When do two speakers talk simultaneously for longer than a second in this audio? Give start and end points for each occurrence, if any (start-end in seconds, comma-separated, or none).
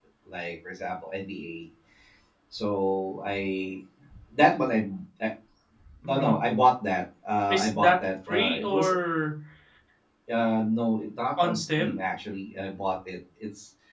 7.5-8.9